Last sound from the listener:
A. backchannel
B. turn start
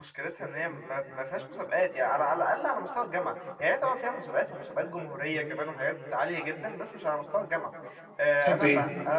A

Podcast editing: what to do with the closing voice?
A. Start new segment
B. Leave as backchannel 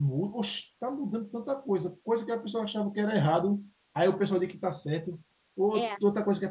B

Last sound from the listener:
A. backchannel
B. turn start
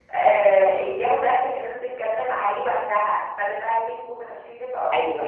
B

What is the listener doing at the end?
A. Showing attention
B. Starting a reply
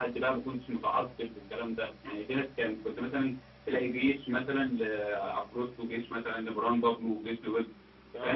B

